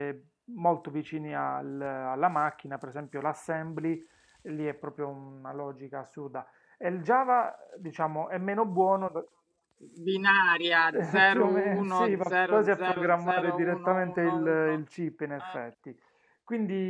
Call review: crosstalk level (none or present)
present